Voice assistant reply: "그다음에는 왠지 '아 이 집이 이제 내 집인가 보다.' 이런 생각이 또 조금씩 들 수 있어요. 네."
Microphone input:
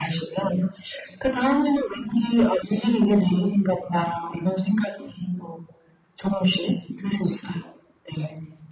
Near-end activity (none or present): none